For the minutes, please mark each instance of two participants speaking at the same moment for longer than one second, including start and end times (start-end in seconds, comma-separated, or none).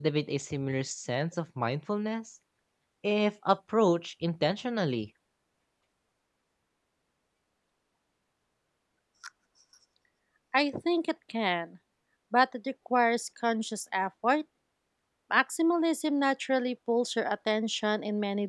none